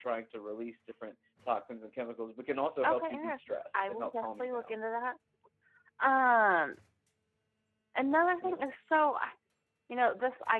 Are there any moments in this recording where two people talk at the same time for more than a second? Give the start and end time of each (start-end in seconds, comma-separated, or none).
2.8-4.8